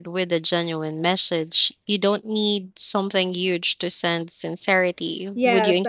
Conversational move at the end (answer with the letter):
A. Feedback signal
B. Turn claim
B